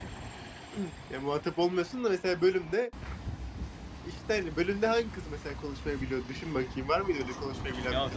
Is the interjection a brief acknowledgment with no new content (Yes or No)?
No